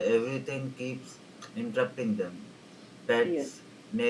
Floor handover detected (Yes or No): No